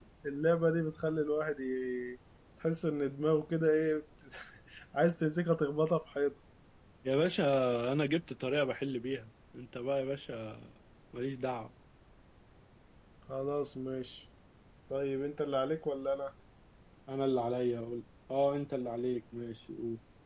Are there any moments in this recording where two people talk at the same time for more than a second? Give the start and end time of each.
none

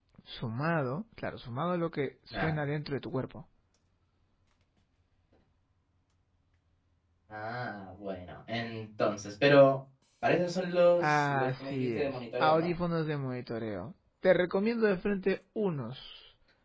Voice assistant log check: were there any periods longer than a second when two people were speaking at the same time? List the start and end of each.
11.0-12.7

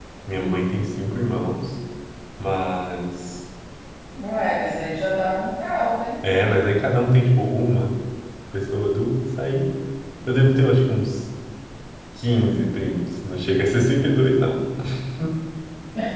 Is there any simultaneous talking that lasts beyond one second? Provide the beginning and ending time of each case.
none

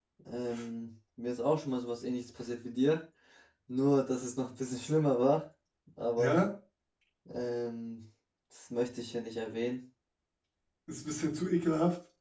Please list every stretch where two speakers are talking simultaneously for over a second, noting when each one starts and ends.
none

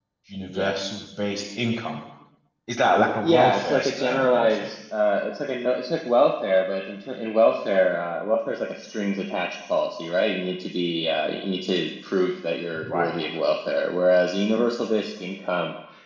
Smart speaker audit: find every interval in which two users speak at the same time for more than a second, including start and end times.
3.2-4.7

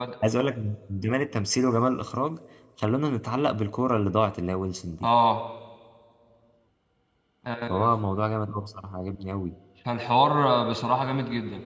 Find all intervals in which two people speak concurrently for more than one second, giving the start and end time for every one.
none

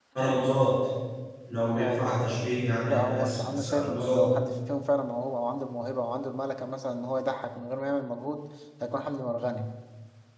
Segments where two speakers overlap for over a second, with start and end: 2.8-4.3

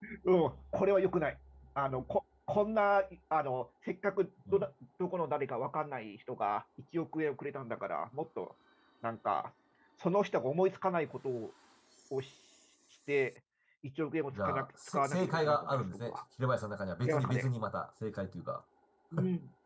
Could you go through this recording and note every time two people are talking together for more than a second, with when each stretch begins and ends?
14.3-16.2

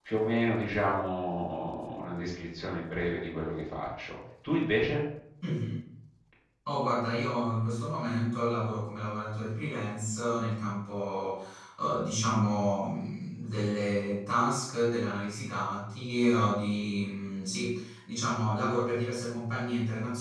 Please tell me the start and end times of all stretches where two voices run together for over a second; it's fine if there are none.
none

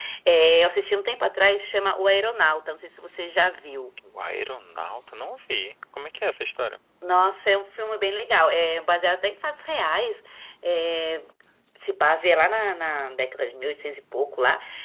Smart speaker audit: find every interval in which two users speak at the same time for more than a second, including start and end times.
none

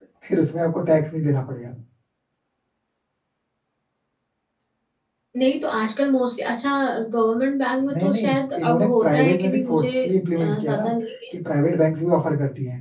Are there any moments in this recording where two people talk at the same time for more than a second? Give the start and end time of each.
7.9-9.8

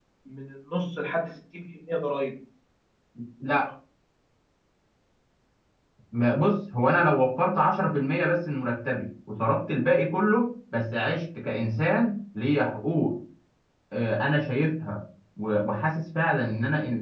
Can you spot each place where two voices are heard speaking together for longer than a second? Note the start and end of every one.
none

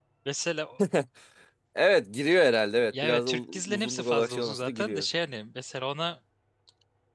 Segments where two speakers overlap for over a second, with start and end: 3.0-5.0

